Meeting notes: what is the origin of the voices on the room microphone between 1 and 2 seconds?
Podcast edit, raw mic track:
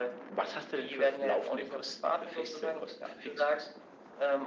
echo only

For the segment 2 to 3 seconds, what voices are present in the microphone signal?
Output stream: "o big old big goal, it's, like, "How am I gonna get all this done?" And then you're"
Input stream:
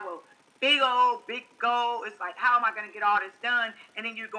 echo only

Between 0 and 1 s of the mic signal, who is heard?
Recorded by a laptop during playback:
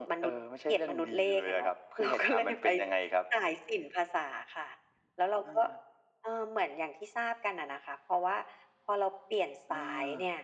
echo only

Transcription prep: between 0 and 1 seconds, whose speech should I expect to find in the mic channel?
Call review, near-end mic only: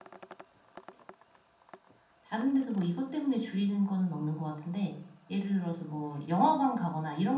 neither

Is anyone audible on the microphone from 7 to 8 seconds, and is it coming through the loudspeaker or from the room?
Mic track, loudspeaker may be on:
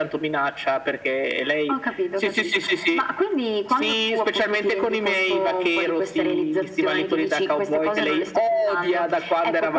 echo only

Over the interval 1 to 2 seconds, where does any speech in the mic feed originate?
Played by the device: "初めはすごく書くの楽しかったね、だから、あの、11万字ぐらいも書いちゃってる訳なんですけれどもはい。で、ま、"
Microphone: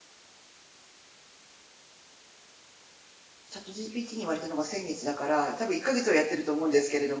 neither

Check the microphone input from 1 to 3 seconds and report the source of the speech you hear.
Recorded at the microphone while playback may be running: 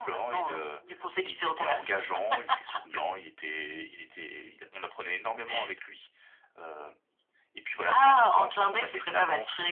echo only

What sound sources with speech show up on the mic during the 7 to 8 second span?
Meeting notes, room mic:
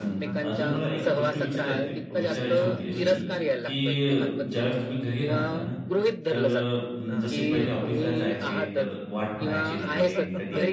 both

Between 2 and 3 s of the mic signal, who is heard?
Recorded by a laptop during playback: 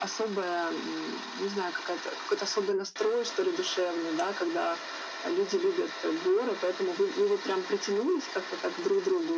echo only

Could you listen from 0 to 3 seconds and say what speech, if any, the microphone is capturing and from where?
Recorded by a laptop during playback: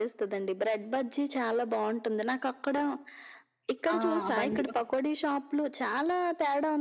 echo only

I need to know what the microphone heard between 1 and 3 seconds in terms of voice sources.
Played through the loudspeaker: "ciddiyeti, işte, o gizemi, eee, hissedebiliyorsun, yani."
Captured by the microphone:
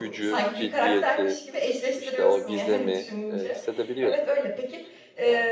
both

